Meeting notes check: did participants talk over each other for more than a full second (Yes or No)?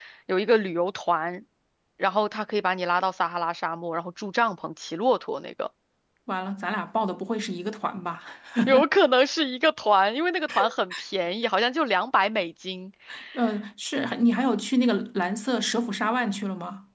No